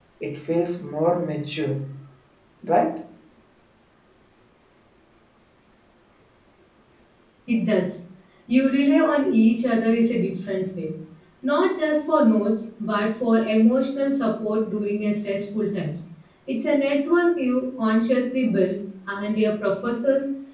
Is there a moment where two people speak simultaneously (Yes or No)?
No